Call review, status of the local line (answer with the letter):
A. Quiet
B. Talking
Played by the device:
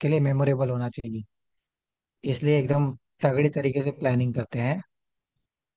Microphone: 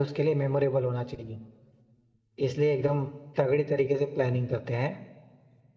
A